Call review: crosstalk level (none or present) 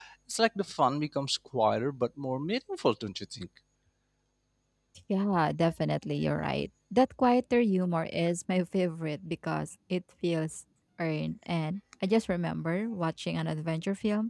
none